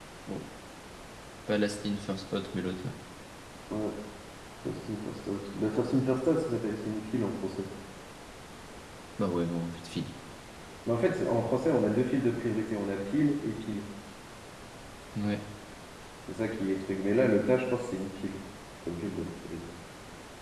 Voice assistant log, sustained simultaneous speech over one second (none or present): none